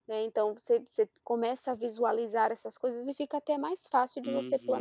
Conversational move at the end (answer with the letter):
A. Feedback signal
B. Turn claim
B